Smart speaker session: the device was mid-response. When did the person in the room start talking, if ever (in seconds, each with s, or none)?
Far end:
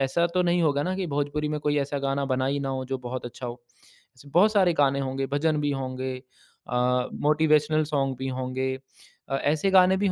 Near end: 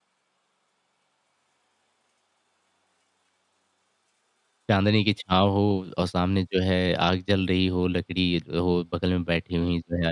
4.7 s